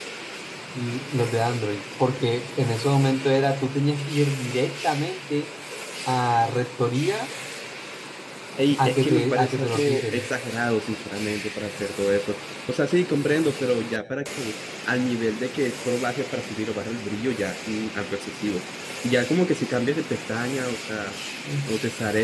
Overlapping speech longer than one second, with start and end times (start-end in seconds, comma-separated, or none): 8.8-10.3